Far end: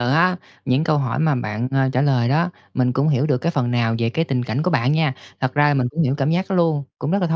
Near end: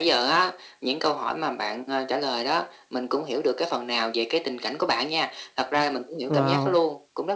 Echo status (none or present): present